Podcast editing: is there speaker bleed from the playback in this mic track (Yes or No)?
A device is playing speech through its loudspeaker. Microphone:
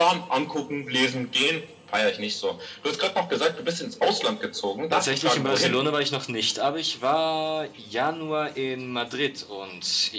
Yes